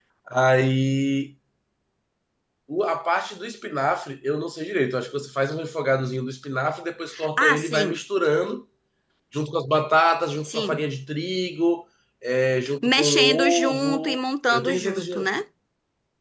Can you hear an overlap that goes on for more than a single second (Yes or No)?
Yes